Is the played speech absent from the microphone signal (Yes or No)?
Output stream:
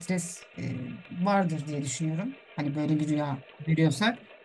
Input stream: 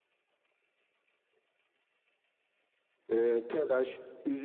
Yes